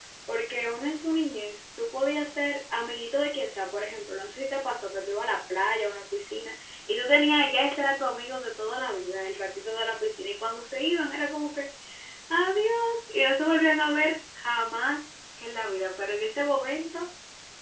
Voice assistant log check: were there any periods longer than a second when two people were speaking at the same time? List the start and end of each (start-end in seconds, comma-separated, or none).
none